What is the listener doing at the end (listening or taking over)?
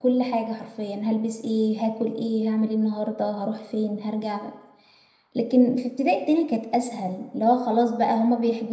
listening